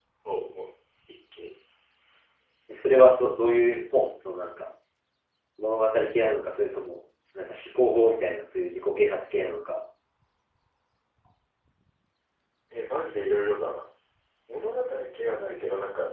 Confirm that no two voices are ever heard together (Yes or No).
Yes